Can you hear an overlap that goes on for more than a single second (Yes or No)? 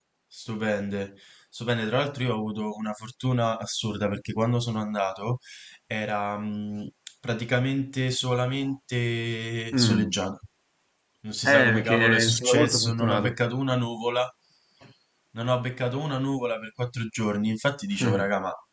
Yes